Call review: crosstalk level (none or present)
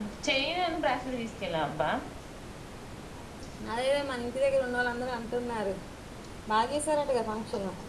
none